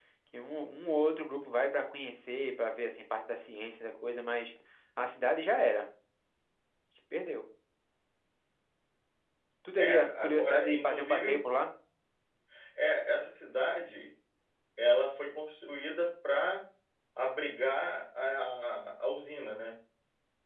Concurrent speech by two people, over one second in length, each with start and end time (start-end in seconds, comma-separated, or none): 9.8-11.4